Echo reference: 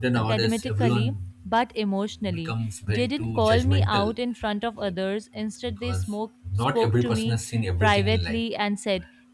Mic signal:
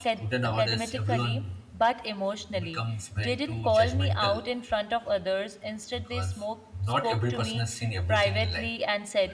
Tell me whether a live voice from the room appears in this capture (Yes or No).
No